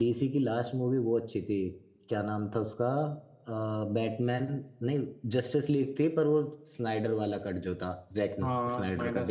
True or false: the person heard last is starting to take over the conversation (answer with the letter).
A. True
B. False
A